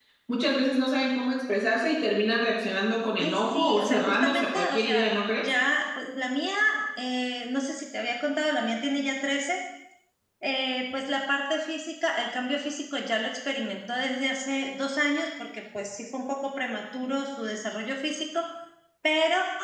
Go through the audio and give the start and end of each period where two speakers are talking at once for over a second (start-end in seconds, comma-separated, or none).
3.2-5.5